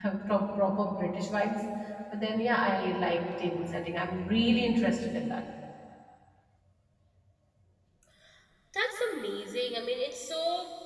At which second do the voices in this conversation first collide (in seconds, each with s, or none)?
none